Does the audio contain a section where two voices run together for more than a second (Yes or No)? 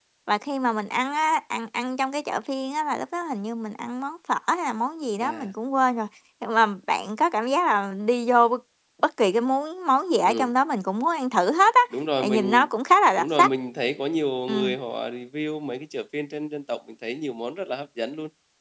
No